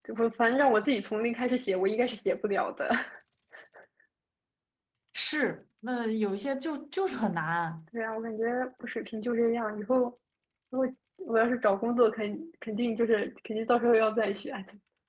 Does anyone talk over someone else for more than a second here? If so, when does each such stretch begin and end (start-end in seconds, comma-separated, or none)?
none